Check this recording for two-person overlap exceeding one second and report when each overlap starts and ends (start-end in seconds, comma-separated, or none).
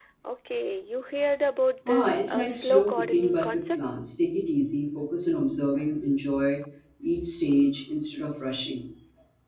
1.9-3.8